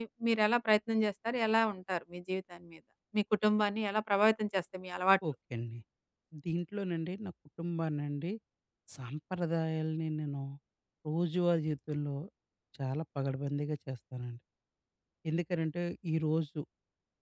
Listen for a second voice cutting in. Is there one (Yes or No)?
No